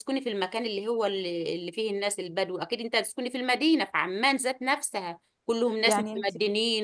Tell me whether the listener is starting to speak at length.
No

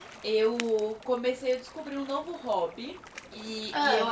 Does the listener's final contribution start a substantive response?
No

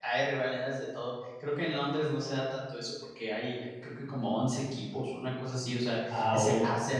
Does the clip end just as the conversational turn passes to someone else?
No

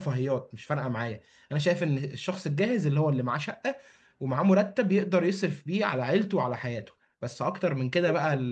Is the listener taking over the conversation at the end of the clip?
No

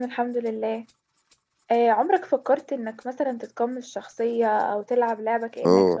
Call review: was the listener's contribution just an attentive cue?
No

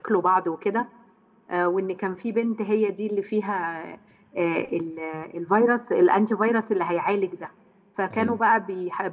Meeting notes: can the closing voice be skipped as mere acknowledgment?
Yes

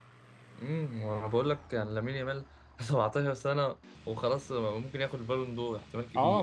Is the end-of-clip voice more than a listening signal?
Yes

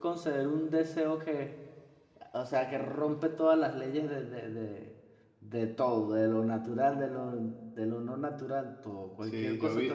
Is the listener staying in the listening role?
No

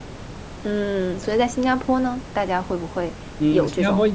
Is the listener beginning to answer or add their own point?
Yes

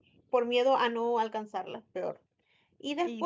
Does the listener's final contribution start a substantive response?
No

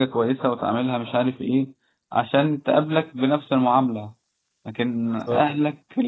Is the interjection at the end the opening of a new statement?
No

